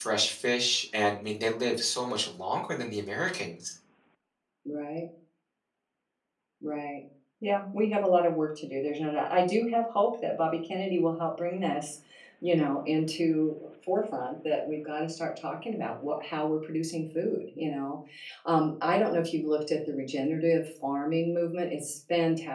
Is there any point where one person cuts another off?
No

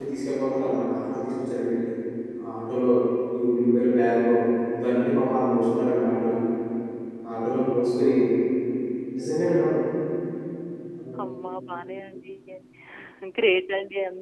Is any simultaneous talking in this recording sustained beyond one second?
No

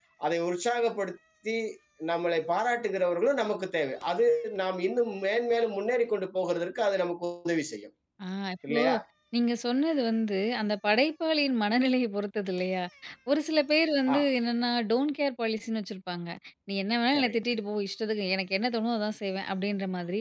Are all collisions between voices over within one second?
Yes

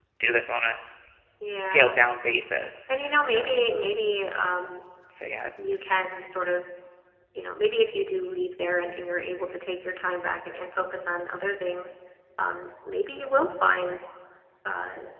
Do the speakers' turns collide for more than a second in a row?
No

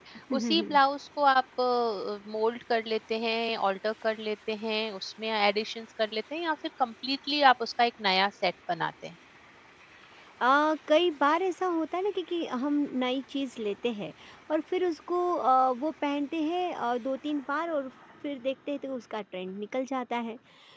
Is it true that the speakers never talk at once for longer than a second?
Yes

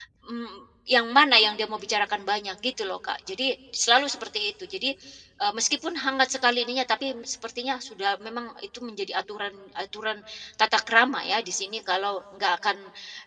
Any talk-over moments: No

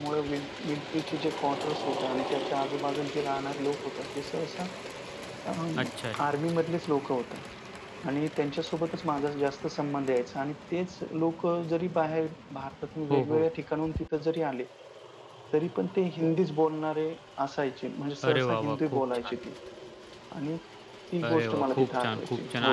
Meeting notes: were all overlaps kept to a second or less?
No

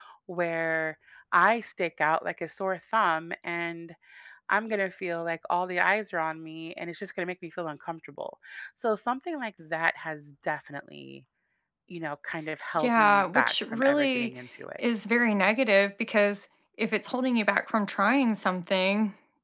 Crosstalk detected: Yes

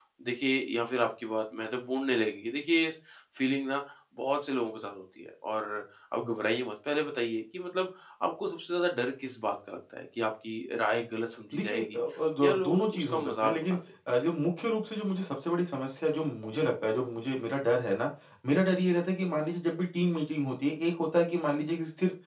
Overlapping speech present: Yes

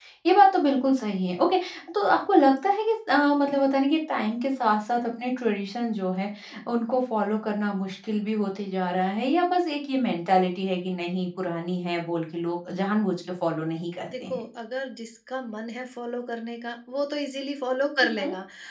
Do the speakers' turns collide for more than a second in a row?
No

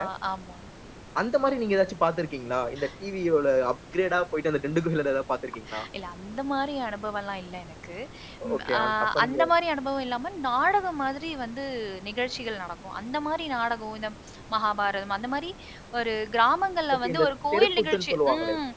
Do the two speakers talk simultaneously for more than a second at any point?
Yes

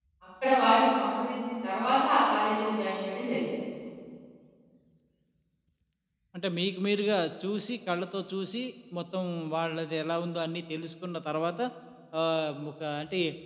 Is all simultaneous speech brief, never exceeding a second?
Yes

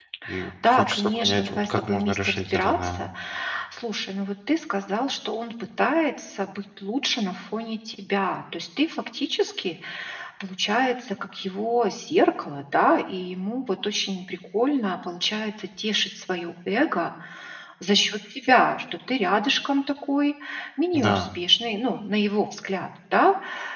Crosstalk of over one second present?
Yes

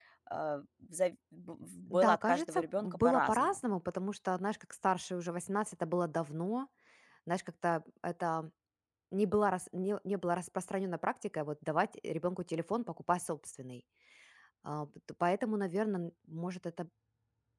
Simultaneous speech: Yes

